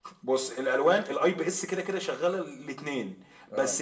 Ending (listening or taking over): listening